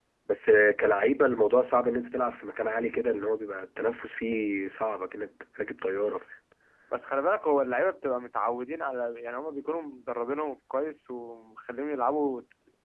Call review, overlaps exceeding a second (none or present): none